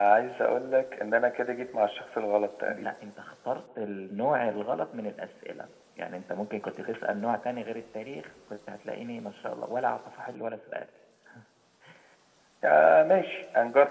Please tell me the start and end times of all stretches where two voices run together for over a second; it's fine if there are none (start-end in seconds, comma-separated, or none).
none